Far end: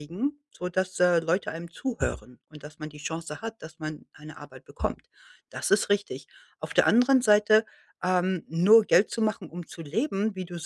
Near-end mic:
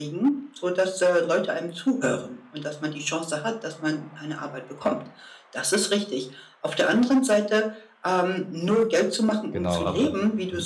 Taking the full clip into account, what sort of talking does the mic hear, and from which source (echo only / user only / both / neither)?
both